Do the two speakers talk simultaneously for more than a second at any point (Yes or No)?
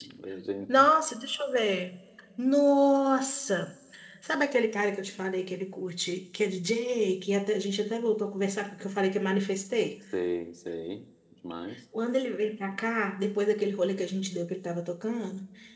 No